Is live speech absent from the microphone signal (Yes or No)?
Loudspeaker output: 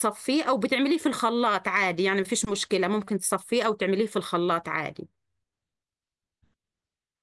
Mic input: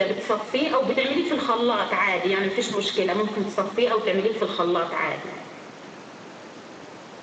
Yes